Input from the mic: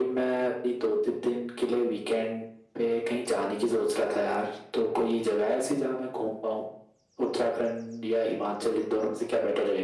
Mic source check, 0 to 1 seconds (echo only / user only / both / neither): echo only